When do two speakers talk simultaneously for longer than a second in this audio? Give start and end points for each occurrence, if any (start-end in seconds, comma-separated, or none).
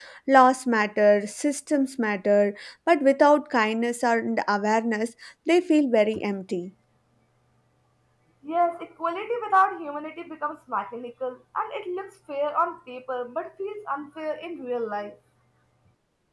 none